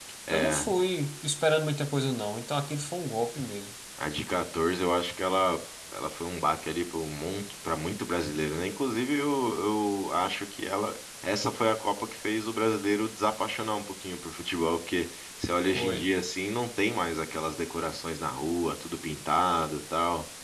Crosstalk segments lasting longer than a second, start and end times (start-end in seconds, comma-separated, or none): none